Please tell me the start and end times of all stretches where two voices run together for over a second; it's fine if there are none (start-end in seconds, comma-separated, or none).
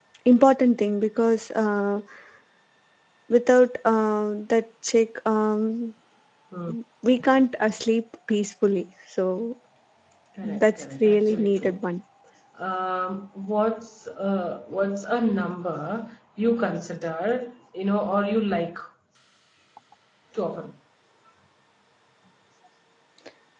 10.4-11.8